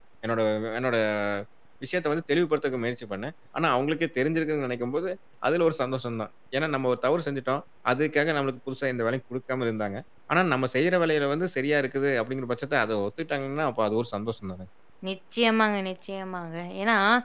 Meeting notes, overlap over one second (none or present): none